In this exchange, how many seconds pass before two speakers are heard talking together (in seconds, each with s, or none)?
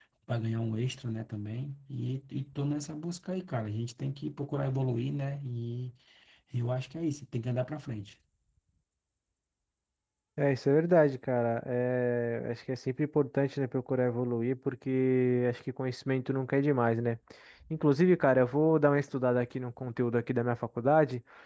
none